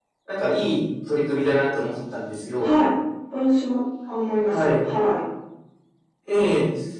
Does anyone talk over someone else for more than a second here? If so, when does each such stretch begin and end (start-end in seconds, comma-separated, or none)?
none